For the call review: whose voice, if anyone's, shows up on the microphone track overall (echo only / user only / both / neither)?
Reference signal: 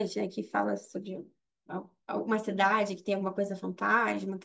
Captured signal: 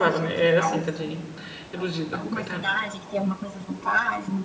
both